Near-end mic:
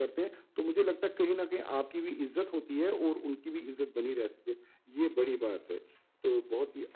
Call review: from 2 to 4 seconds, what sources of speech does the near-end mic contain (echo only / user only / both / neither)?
echo only